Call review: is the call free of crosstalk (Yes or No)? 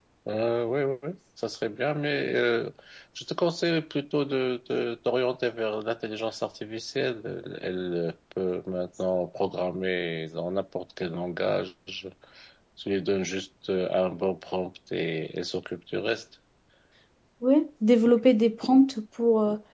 Yes